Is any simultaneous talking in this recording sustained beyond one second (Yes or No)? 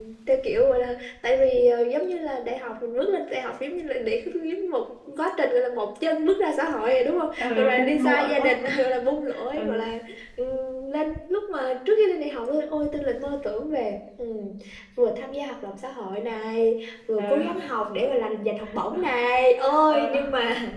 Yes